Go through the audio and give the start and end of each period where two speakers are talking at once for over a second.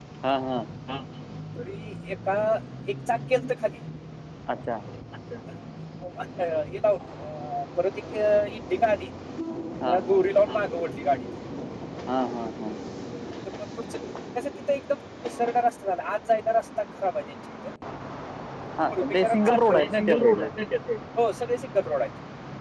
18.9-20.5

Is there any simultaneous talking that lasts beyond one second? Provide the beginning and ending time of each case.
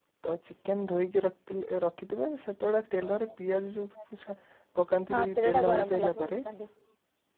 5.1-6.4

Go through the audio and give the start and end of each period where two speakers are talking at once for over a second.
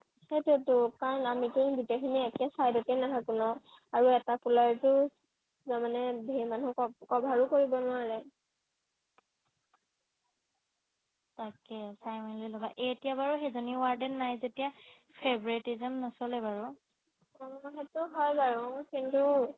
none

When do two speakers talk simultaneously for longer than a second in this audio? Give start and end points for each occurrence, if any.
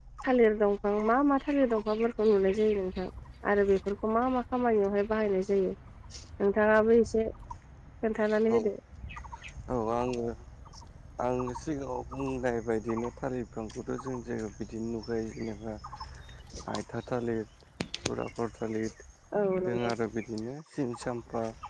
none

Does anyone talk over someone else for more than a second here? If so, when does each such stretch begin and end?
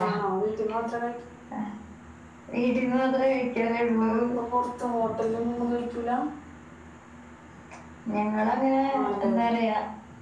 none

